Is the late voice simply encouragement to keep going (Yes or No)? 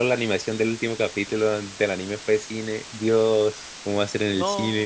No